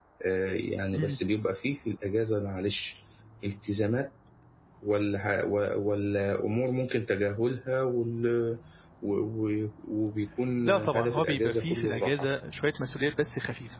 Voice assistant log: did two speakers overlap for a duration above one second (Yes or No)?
Yes